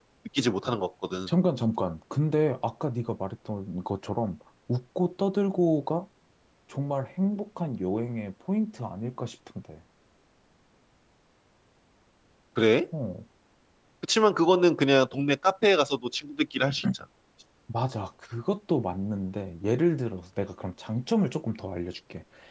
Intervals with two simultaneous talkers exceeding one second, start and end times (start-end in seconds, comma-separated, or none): none